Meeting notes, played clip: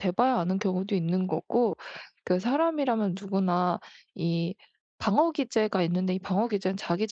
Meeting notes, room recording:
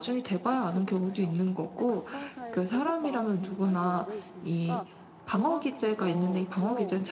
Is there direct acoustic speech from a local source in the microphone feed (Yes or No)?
Yes